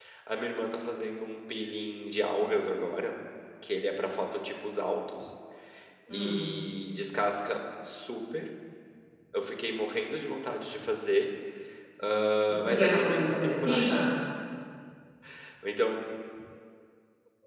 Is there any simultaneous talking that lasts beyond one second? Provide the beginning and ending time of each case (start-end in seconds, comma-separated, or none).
12.6-14.0